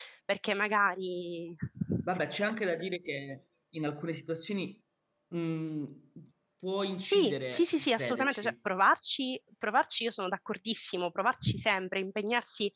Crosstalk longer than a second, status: present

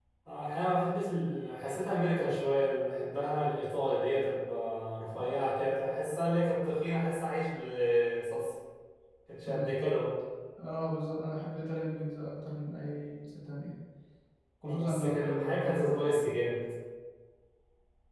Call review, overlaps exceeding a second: present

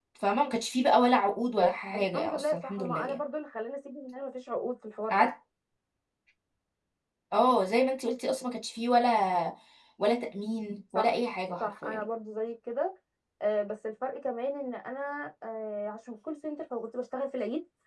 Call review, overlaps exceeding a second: present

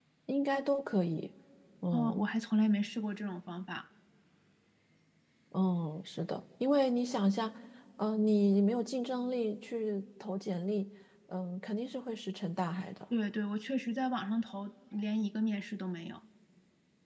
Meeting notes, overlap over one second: none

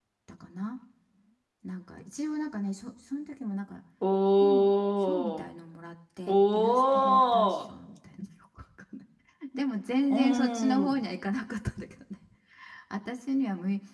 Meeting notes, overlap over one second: present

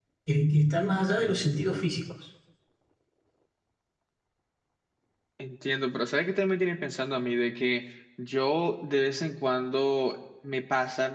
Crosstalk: none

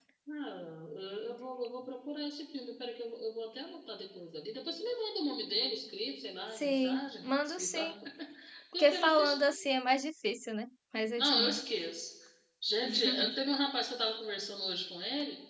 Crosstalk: present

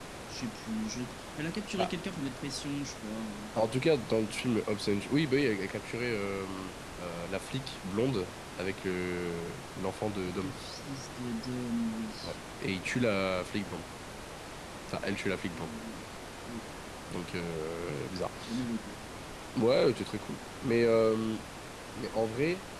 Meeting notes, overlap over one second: none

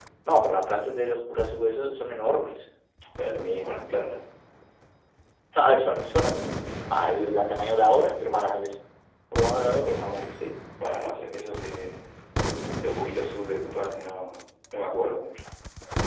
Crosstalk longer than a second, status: none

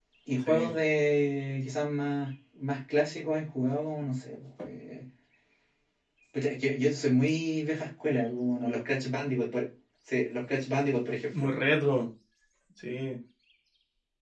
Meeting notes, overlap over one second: none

